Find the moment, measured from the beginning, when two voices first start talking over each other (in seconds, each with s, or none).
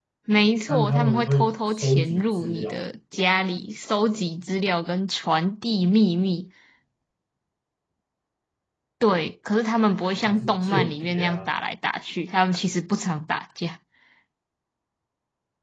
0.7 s